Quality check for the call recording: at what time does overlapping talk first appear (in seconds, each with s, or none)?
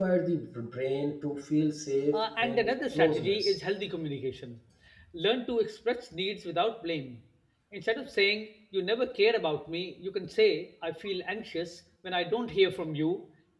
2.1 s